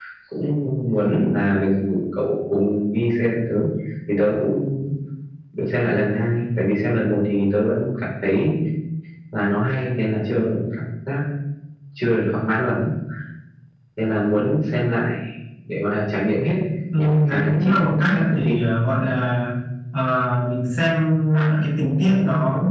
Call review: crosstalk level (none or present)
present